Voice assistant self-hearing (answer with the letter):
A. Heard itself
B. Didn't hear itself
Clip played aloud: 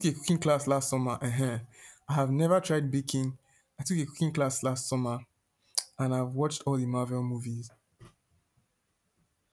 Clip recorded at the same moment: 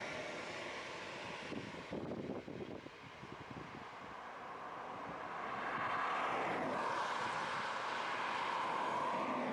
B